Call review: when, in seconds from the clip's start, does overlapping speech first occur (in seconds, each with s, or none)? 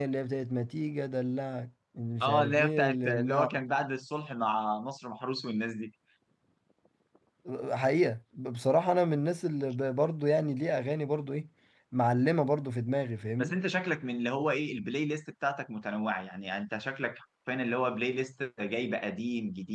2.2 s